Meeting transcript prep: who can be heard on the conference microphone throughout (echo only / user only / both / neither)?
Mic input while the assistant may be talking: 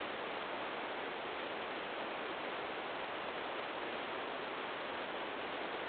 neither